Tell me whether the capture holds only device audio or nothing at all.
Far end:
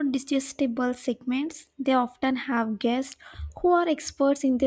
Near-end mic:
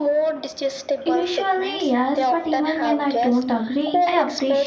No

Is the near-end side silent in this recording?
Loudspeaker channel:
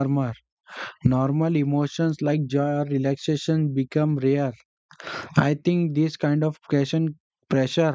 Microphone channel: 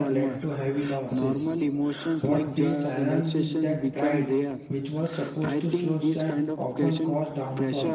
No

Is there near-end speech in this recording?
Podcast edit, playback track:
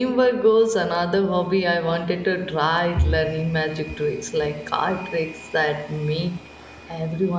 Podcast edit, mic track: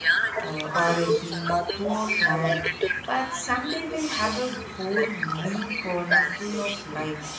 Yes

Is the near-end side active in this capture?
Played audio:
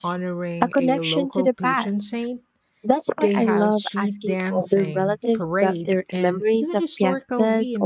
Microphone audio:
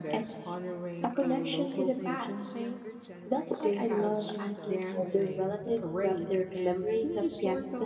Yes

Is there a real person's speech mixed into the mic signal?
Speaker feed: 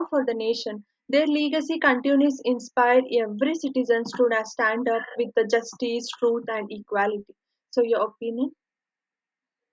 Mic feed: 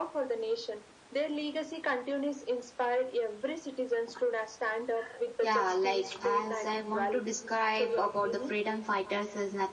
Yes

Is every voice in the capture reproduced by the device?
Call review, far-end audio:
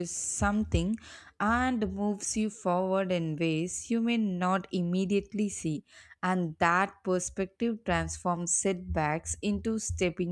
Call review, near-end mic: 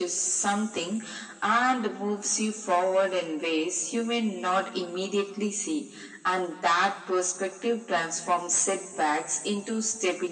Yes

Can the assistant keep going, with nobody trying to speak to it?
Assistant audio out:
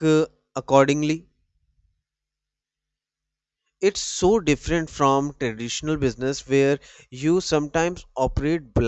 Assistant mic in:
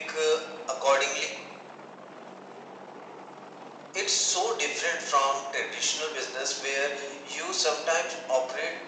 Yes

